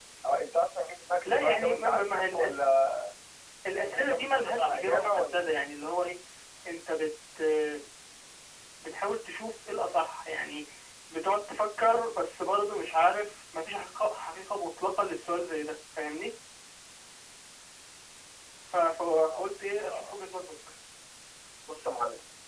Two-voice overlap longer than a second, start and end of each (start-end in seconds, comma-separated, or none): 1.2-2.7, 3.9-5.4